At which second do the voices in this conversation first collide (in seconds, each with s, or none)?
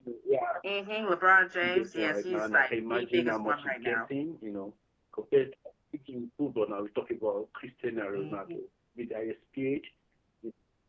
1.6 s